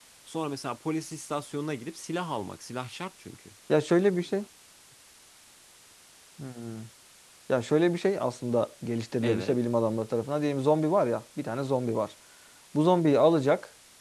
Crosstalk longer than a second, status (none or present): none